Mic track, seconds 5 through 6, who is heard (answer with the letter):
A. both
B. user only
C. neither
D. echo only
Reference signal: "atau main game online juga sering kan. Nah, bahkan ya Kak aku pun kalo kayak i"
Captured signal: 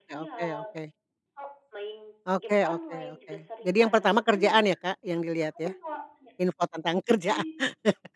A